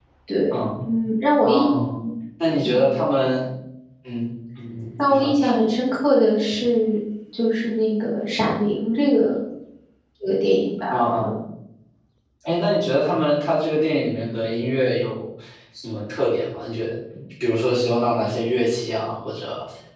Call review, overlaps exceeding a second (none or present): none